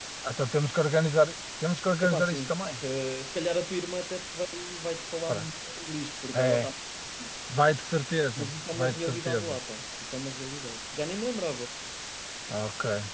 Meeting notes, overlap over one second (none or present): present